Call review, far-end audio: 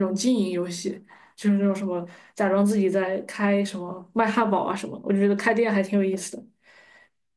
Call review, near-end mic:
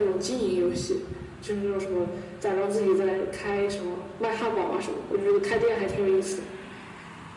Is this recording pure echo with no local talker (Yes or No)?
Yes